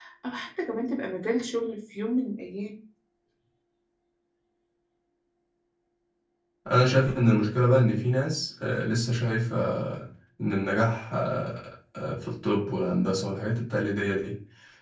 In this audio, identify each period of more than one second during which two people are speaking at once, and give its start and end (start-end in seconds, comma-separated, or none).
none